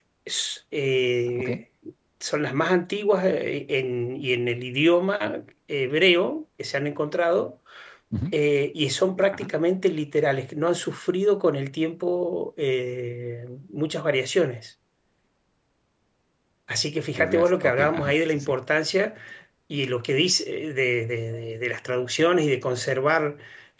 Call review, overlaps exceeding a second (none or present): present